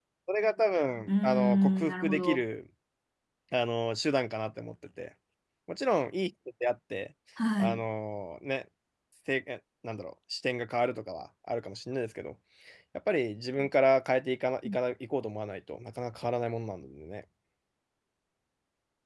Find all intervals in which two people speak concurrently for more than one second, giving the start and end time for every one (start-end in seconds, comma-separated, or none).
1.1-2.4